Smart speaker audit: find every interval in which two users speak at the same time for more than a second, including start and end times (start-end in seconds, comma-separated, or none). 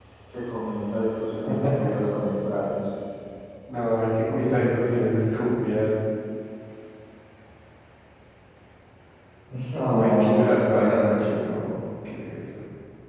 9.9-11.4